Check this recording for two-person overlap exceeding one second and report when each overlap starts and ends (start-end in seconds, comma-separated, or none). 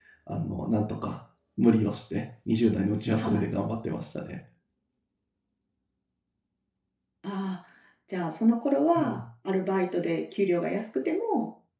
none